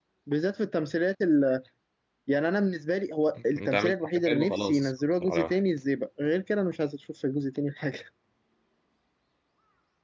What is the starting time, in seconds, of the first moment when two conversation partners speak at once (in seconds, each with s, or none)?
3.6 s